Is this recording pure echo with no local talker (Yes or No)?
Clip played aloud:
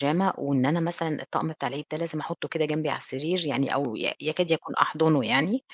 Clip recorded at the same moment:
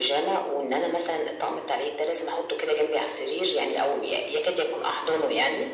Yes